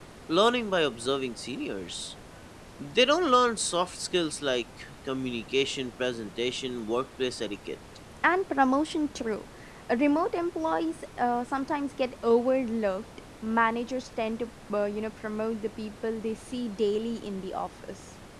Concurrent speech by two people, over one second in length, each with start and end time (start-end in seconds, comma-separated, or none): none